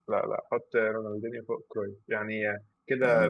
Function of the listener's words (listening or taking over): taking over